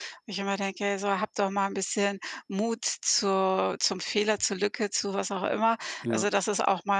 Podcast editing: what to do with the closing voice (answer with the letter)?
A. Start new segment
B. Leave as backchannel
B